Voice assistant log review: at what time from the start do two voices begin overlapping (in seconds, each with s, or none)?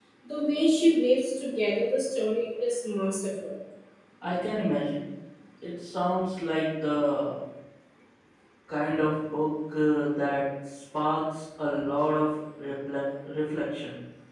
none